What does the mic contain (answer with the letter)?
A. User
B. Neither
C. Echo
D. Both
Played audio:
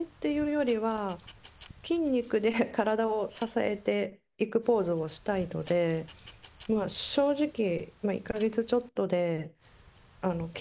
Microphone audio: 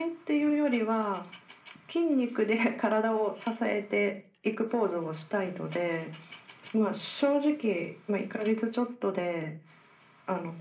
C